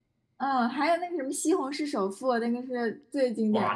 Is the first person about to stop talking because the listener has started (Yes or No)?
Yes